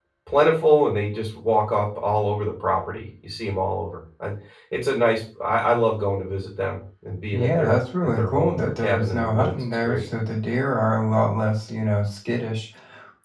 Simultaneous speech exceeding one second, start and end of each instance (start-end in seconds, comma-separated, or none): 7.3-10.1